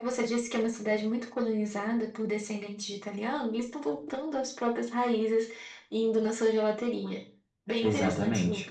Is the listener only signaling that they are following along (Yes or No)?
No